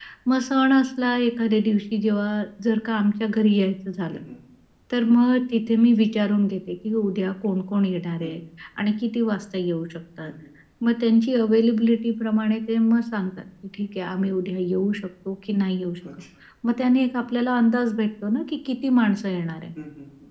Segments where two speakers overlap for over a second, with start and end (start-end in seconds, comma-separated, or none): none